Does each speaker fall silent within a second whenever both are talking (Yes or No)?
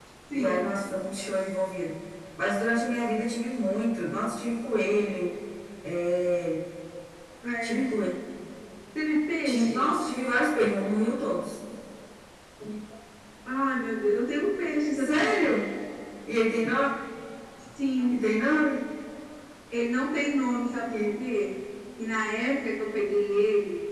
Yes